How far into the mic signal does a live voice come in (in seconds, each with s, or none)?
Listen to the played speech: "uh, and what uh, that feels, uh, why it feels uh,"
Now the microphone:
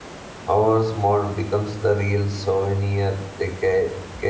0.5 s